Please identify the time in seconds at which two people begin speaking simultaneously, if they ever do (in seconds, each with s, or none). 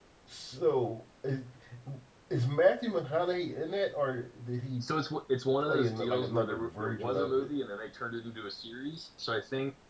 5.6 s